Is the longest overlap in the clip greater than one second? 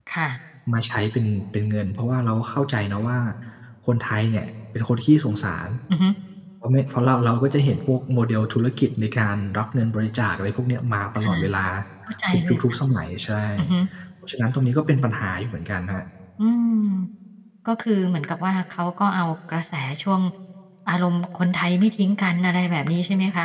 No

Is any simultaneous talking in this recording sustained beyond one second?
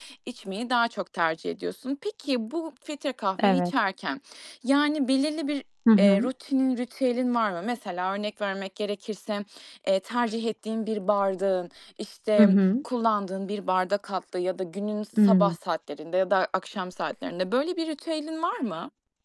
No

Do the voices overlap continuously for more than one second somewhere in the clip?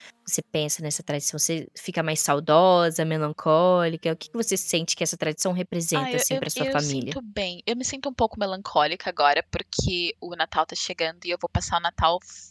Yes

